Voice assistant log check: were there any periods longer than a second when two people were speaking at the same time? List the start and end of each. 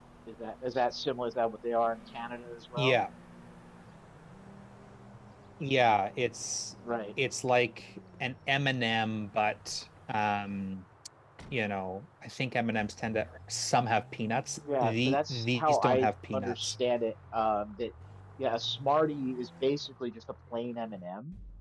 14.8-16.8

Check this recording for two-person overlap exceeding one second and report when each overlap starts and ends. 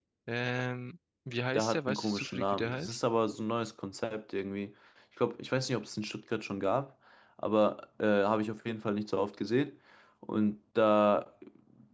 1.5-3.0

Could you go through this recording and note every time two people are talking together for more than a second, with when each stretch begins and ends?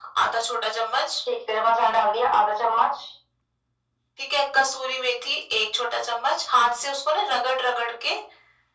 none

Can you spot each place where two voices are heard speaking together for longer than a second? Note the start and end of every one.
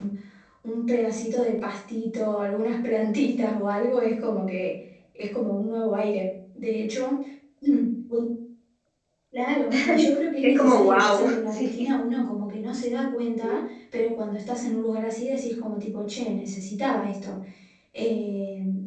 10.4-11.9

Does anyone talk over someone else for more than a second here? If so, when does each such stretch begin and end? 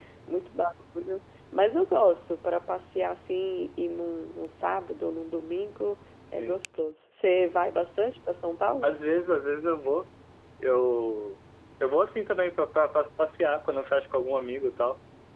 none

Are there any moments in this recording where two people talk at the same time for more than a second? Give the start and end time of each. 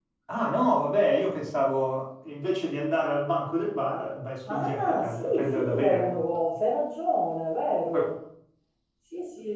4.5-6.2

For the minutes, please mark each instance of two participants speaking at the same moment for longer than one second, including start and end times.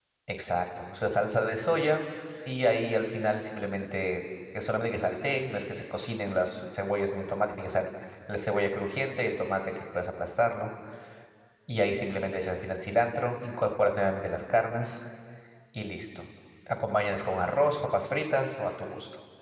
none

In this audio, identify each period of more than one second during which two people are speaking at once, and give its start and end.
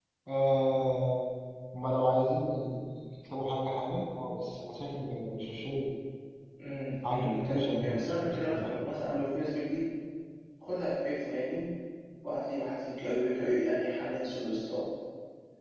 7.0-8.9

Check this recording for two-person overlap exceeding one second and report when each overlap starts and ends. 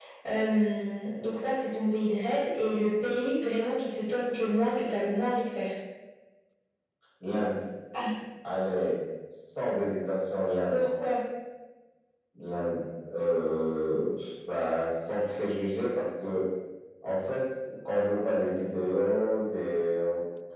none

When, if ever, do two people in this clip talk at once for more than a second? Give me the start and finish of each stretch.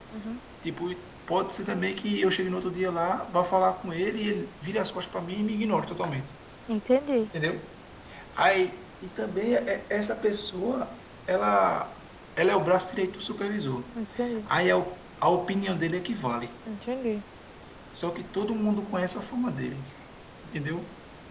none

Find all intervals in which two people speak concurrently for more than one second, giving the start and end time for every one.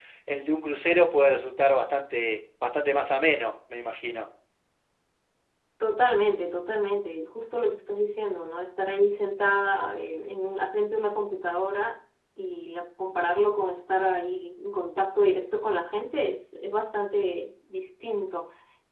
none

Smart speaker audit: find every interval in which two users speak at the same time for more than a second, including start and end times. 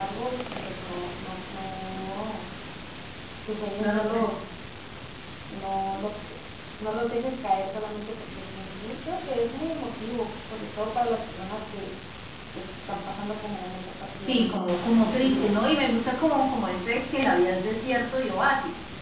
14.3-15.6

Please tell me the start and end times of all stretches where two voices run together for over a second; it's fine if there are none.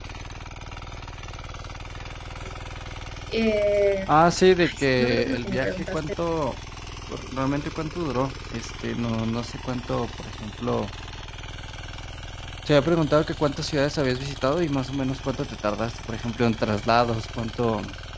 4.6-6.0

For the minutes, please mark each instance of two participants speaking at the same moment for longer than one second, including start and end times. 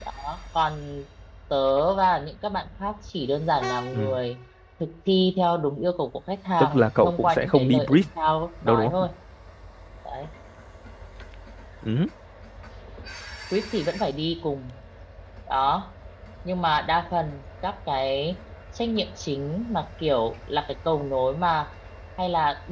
6.6-8.0

